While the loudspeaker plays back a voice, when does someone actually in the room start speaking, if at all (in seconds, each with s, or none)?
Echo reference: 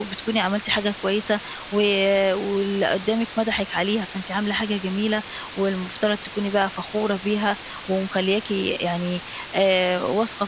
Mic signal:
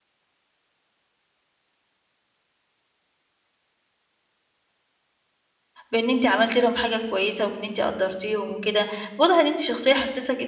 5.9 s